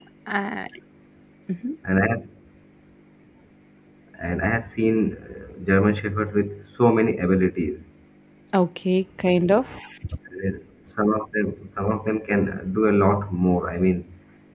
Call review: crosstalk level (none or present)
none